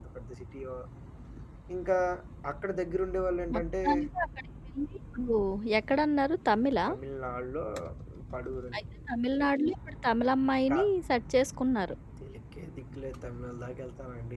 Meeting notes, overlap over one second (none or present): none